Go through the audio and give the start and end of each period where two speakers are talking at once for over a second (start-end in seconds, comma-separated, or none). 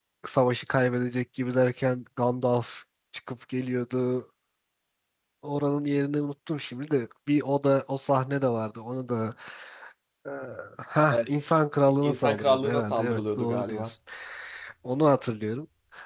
12.0-13.9